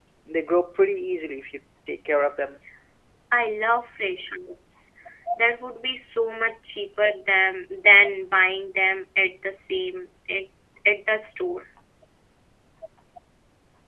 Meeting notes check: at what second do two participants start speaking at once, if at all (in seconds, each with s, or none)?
none